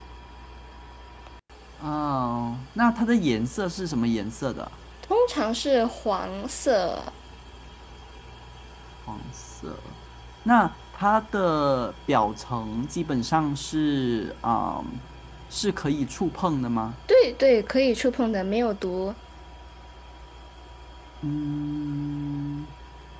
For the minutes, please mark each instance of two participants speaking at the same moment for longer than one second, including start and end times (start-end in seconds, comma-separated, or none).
none